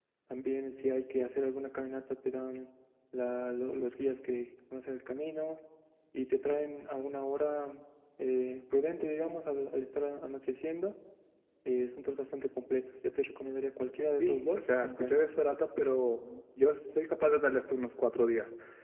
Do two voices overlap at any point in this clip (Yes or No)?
Yes